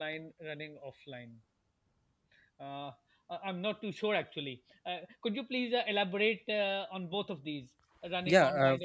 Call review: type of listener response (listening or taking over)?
taking over